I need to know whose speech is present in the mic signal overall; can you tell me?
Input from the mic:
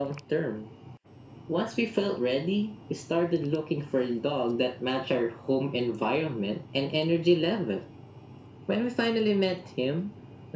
echo only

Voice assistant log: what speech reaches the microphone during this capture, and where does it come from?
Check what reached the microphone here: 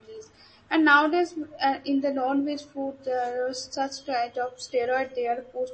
user only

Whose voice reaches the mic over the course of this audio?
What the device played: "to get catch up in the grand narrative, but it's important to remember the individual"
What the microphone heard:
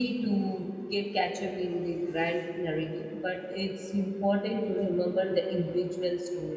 echo only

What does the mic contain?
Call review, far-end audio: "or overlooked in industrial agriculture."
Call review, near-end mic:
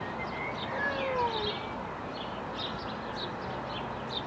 neither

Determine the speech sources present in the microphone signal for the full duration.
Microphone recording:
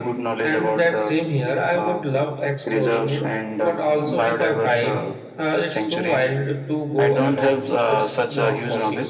echo only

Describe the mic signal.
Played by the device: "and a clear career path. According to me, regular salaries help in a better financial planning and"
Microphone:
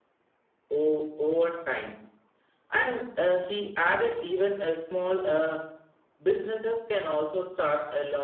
user only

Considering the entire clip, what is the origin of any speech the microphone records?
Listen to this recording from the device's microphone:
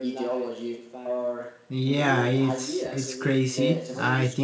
both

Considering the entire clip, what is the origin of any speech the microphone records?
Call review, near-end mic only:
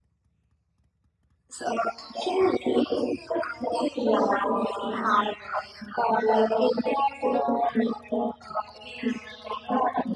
echo only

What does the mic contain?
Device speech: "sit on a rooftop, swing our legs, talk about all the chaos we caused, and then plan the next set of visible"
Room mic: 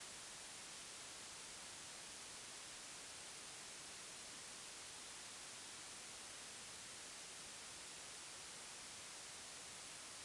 neither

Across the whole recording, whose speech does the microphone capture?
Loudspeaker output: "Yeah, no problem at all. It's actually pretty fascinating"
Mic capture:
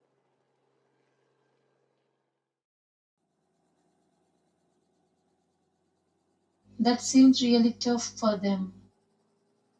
user only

